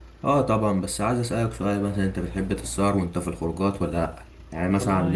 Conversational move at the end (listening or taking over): listening